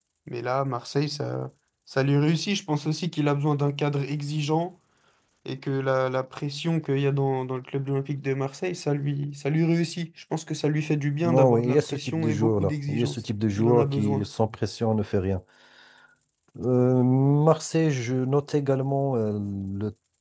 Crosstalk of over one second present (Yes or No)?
Yes